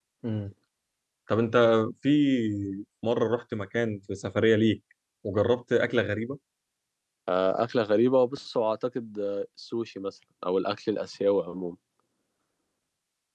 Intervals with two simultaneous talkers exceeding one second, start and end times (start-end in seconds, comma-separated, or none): none